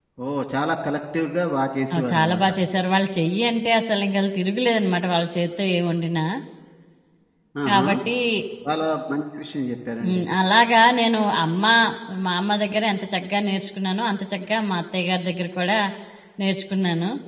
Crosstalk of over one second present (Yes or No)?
No